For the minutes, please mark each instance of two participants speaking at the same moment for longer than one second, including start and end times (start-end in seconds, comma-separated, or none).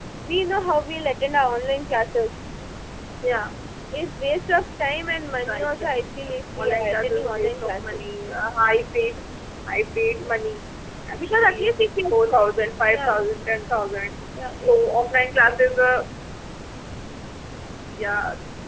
5.5-8.1